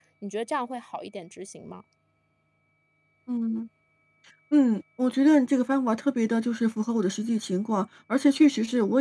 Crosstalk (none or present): none